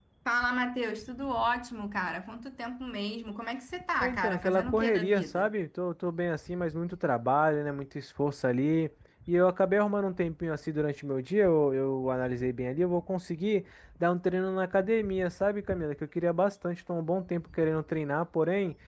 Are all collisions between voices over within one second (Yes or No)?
No